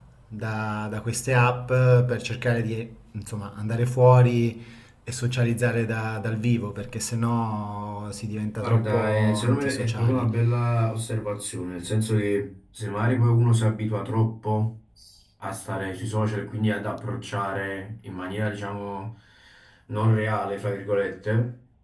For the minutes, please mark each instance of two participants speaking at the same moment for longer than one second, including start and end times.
8.6-10.2

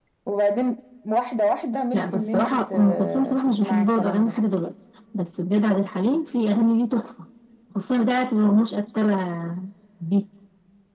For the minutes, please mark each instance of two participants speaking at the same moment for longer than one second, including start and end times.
1.9-4.3

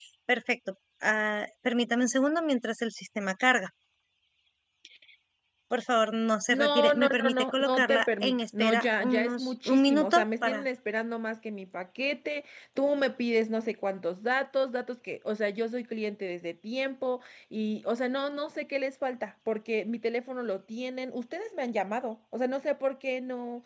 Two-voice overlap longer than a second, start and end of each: 6.5-10.7

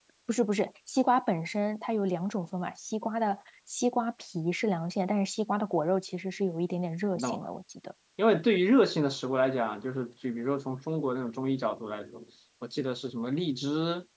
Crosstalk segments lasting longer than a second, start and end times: none

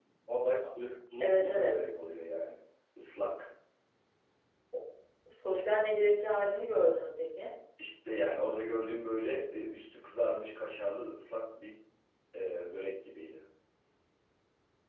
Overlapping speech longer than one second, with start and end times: none

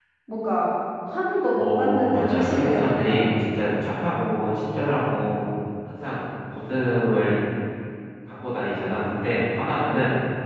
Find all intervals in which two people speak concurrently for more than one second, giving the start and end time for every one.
1.6-3.2

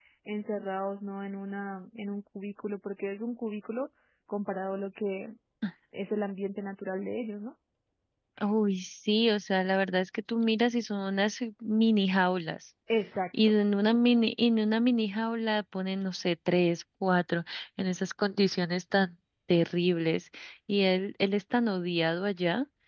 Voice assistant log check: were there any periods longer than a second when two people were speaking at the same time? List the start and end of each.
none

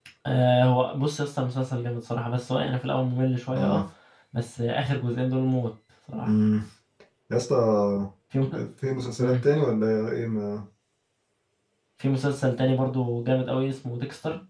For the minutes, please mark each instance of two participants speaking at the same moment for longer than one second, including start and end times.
none

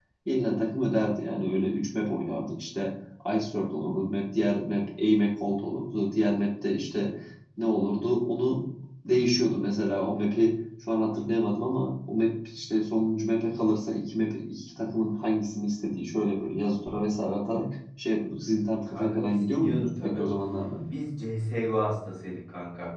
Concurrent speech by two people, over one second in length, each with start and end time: 18.9-20.2

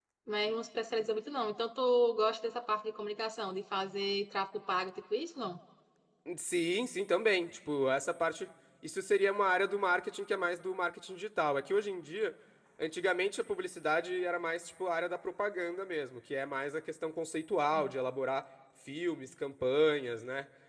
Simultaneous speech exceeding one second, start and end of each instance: none

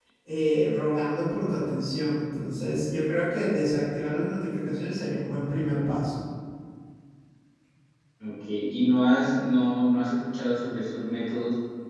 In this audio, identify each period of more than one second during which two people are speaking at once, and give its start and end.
none

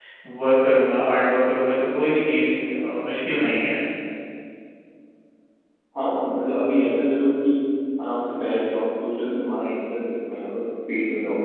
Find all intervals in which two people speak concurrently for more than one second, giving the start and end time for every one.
none

